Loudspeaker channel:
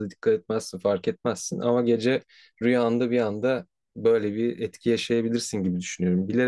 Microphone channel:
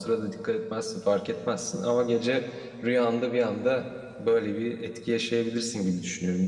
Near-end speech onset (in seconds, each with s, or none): none